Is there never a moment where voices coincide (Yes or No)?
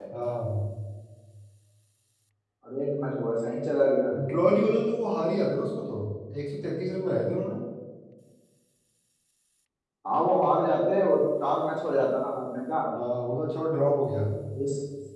Yes